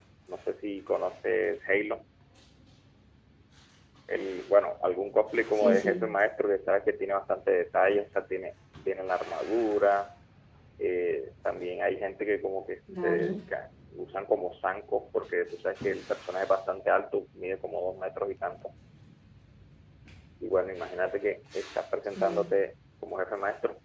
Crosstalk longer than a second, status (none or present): none